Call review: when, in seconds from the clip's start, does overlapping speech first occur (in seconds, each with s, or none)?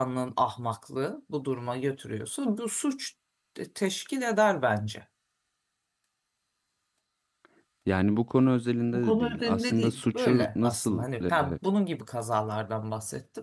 8.9 s